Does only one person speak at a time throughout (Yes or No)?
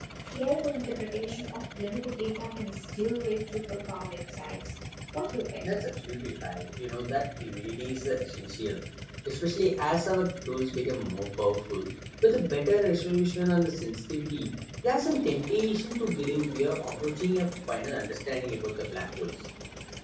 Yes